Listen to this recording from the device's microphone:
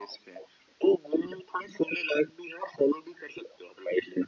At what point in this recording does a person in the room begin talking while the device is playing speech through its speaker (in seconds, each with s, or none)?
none